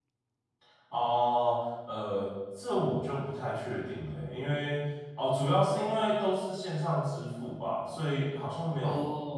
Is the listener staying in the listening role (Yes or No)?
Yes